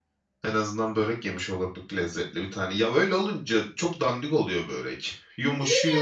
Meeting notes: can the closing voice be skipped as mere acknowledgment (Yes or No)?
Yes